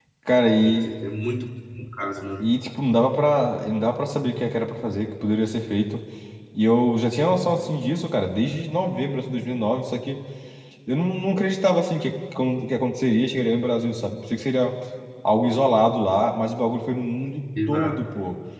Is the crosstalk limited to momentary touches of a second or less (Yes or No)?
Yes